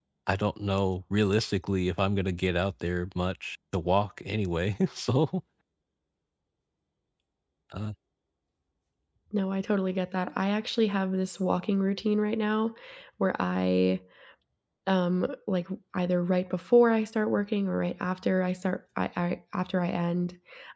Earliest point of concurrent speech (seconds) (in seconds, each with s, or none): none